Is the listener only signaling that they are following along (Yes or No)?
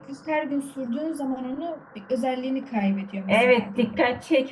No